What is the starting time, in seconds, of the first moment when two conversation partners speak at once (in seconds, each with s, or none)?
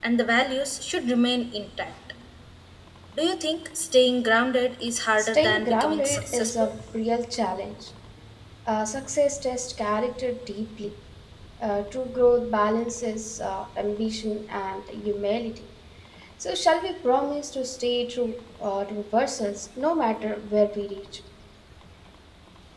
5.2 s